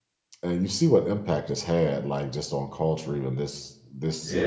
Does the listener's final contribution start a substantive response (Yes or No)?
No